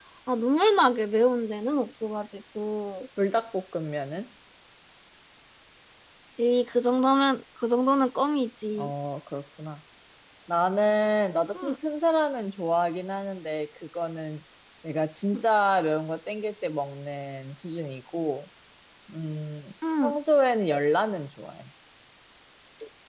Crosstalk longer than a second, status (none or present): none